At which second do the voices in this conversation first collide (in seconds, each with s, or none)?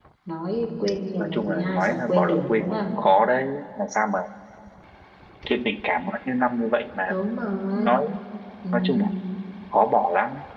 1.2 s